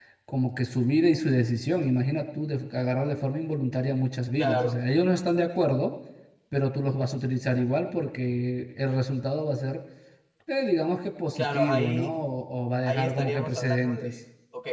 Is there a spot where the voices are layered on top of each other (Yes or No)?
Yes